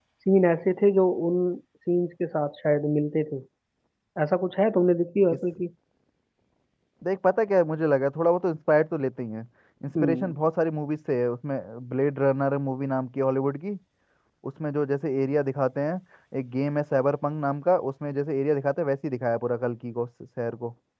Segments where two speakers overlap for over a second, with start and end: none

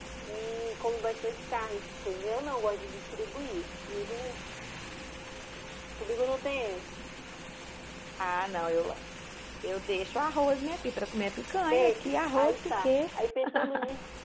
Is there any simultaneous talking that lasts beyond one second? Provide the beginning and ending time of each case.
11.7-12.9

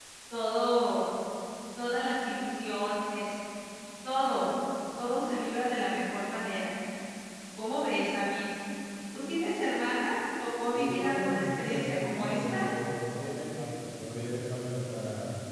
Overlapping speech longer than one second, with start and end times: 10.7-12.6

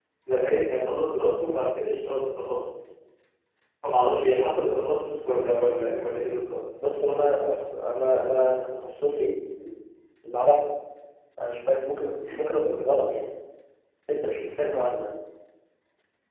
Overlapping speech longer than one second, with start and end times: none

